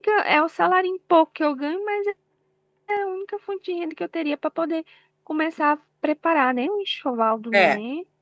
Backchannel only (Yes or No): No